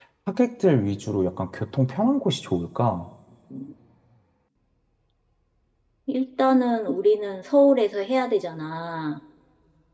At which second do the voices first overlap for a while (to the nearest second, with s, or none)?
none